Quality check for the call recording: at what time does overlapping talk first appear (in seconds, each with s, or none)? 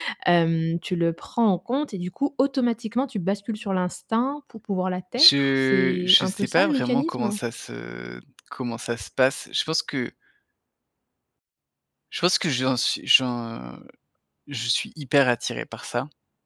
5.2 s